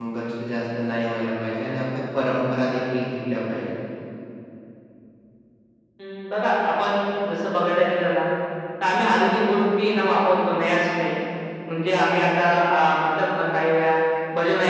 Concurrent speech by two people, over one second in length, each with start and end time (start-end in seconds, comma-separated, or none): none